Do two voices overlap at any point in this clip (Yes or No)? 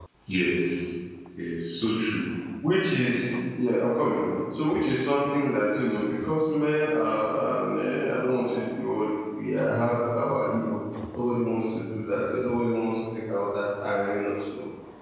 No